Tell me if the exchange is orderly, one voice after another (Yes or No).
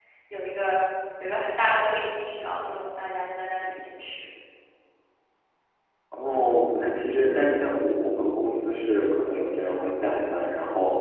Yes